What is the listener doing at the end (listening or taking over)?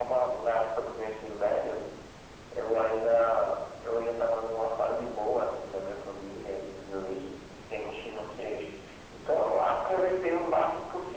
listening